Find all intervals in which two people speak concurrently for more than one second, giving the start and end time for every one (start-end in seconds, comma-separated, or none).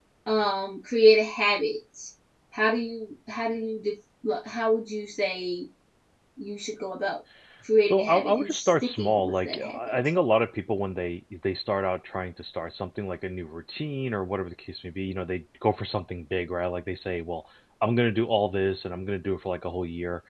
7.8-9.9